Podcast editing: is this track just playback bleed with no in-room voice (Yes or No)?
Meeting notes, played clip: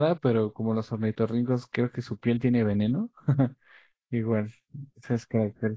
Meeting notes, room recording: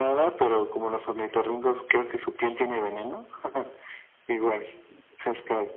Yes